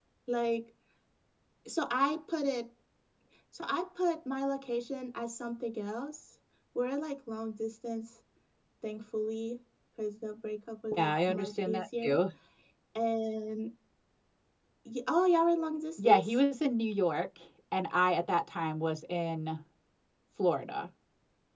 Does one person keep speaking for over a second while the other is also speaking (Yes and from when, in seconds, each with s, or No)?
Yes, from 10.9 s